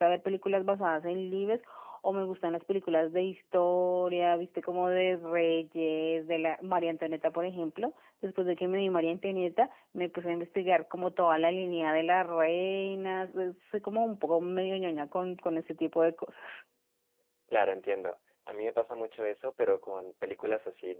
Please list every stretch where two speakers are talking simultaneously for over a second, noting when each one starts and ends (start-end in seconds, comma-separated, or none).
none